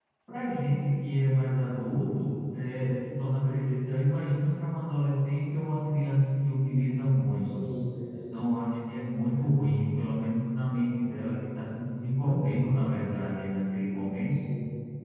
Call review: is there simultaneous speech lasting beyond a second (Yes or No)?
No